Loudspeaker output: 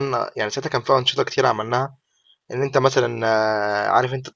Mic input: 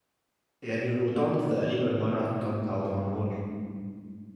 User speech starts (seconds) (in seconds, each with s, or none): 0.6 s